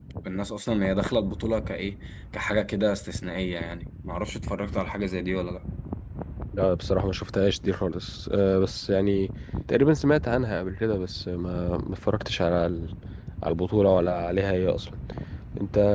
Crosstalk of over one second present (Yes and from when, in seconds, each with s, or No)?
No